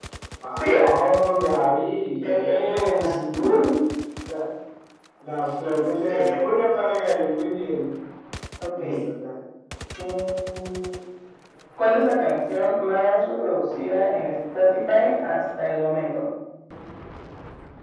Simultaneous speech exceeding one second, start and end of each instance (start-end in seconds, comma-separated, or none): 2.2-3.7